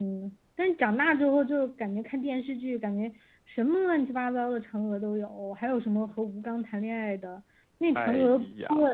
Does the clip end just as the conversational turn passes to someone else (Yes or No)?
No